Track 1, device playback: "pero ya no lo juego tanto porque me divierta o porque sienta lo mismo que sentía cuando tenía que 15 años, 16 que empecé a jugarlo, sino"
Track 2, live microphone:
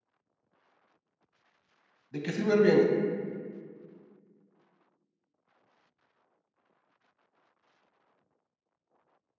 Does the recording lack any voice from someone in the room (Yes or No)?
No